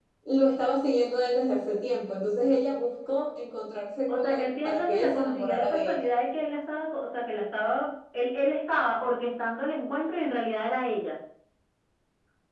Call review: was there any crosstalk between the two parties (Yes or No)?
Yes